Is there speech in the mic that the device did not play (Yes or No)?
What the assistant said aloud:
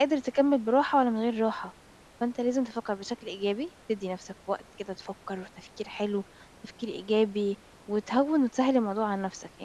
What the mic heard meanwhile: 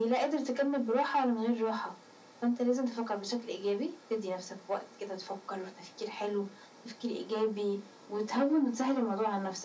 No